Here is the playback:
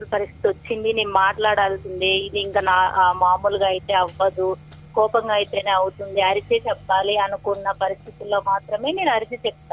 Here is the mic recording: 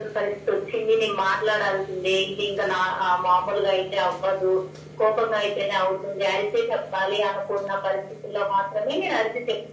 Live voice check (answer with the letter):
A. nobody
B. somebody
A